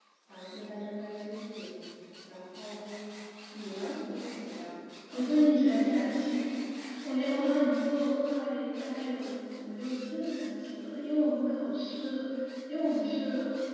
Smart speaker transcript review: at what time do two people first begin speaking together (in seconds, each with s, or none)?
none